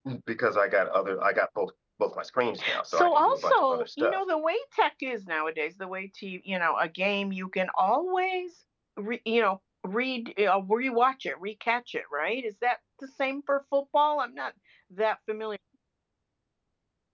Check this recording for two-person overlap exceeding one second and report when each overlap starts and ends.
2.9-4.2

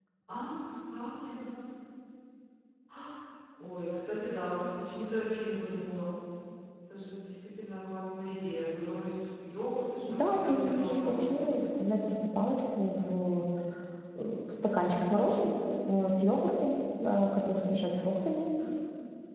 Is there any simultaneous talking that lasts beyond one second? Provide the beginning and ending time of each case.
10.1-11.5

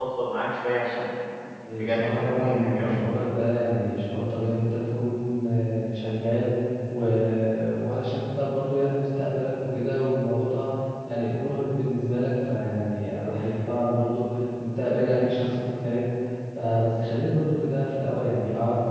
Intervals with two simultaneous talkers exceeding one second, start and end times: 1.7-3.0

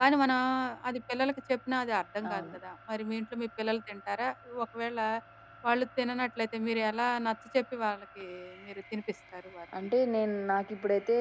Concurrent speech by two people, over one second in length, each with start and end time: none

